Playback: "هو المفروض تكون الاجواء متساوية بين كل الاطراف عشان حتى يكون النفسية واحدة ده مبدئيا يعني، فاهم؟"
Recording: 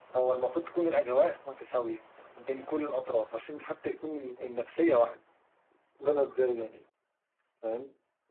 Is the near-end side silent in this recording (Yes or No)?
Yes